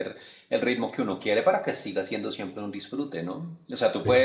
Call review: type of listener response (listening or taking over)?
listening